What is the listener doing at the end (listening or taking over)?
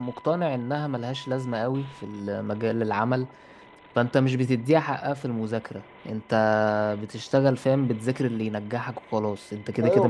taking over